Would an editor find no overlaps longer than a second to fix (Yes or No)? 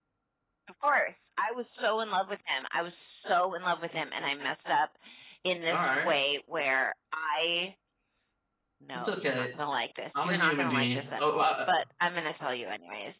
No